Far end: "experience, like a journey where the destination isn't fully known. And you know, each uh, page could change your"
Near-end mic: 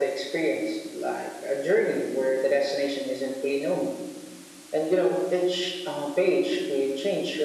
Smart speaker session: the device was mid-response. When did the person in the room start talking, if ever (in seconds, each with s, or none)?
none